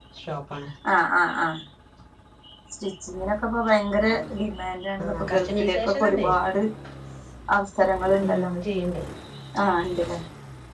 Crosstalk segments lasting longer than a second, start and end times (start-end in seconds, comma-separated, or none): 5.0-6.2